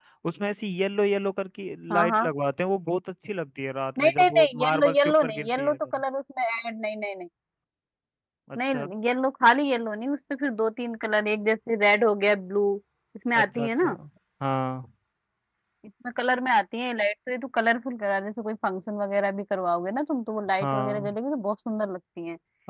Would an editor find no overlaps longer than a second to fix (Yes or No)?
No